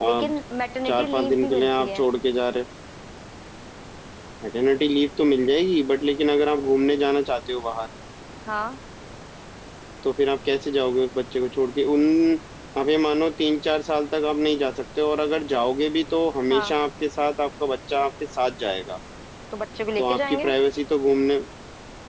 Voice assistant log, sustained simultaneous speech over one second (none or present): present